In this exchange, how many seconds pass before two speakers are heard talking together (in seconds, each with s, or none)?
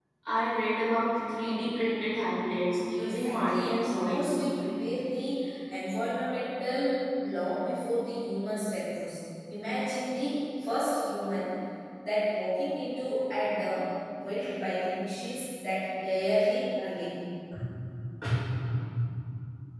3.0 s